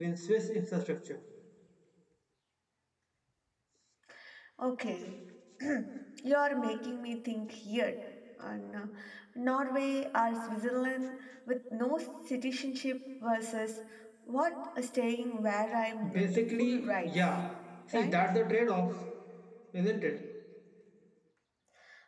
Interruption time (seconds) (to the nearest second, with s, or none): 16 s